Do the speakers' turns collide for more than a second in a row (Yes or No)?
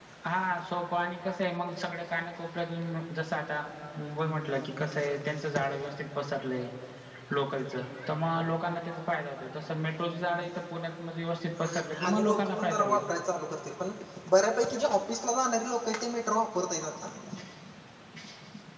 Yes